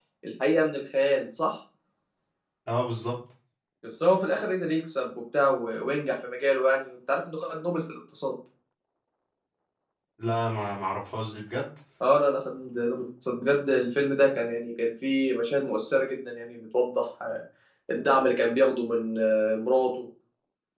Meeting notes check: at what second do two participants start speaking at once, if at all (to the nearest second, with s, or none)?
none